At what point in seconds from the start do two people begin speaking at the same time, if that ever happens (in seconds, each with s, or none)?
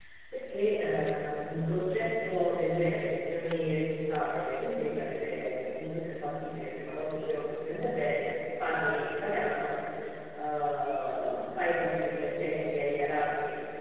none